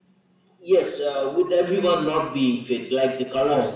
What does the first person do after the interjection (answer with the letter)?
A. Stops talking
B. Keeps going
A